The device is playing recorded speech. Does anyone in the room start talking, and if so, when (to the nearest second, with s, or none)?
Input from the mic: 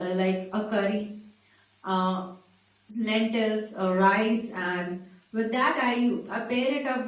none